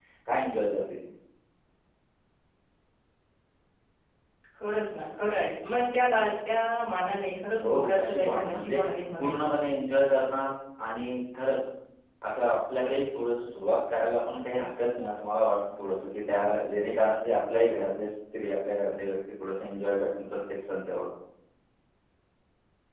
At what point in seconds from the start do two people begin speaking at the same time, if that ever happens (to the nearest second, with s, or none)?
8 s